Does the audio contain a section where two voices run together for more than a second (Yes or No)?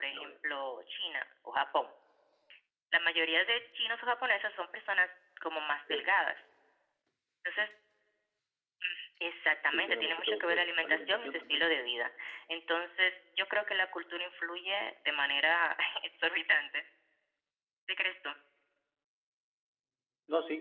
Yes